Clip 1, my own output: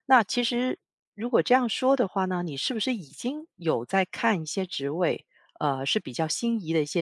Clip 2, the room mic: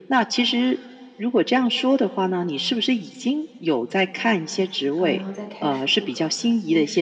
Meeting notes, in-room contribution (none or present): present